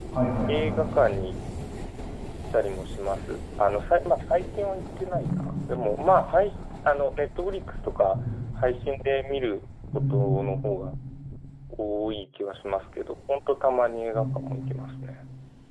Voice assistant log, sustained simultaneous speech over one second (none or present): none